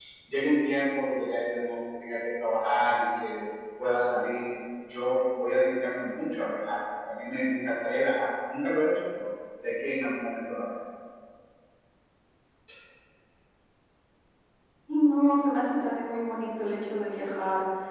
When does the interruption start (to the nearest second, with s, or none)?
none